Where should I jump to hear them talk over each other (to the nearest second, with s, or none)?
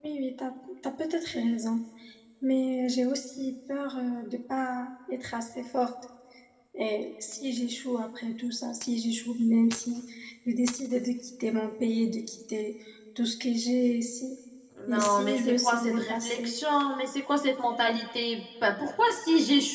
15 s